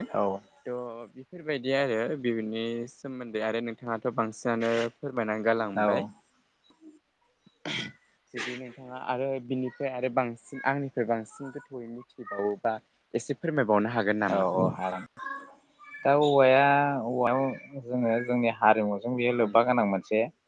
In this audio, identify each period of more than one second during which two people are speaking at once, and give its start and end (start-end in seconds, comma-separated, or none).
none